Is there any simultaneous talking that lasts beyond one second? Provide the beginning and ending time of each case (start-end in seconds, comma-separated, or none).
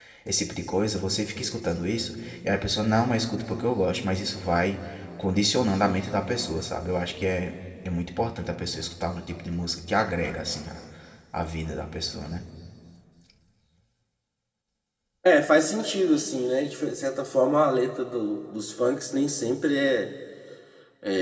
none